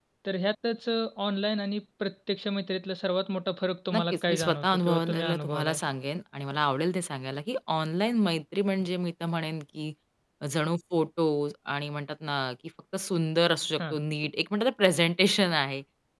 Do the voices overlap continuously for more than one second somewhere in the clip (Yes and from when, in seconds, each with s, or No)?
Yes, from 3.9 s